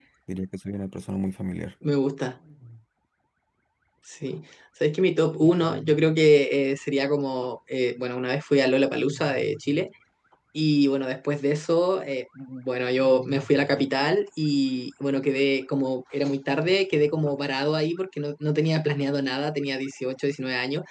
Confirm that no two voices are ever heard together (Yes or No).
Yes